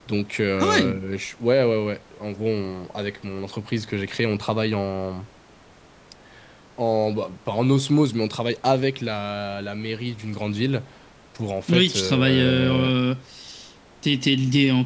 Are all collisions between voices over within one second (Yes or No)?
No